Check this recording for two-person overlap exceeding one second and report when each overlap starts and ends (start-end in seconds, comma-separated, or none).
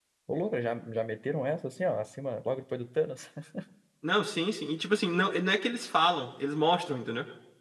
none